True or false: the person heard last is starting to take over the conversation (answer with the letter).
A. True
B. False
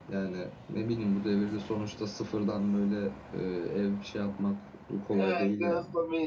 A